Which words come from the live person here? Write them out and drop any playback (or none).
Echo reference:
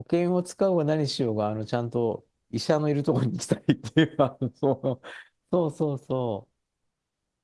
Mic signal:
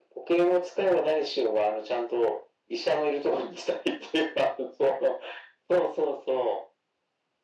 none